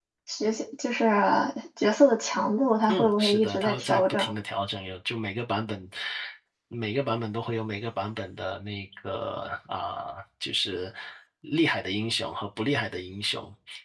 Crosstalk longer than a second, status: present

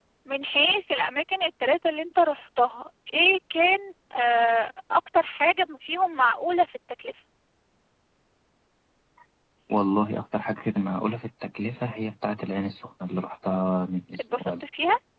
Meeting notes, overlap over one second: none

